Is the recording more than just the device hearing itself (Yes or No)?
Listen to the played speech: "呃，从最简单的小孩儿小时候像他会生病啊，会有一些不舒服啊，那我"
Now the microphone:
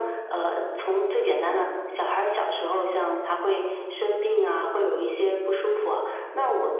No